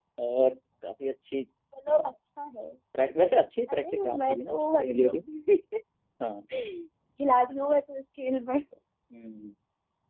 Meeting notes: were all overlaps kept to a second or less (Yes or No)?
No